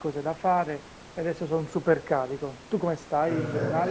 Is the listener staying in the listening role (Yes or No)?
No